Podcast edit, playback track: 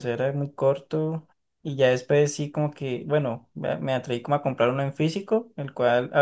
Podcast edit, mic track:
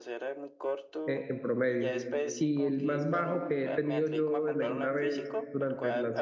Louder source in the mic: user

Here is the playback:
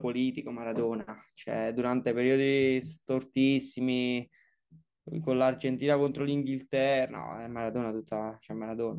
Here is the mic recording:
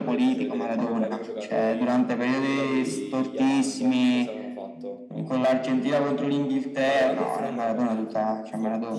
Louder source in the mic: echo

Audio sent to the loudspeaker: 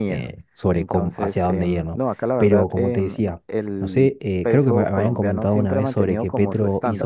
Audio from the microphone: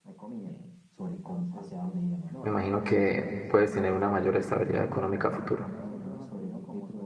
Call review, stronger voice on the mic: user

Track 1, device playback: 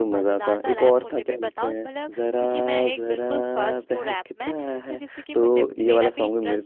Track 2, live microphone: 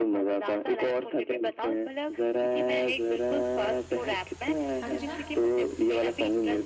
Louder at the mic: echo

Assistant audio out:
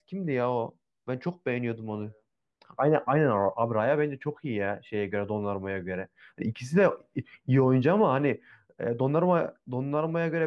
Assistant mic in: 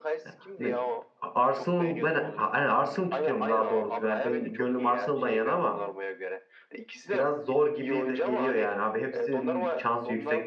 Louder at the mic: user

